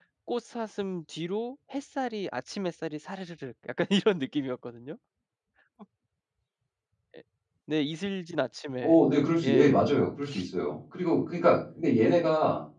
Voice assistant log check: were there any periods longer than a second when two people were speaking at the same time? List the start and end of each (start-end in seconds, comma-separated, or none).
none